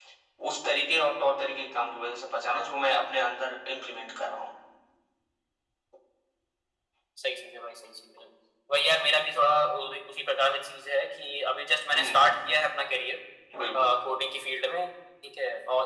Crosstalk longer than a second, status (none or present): none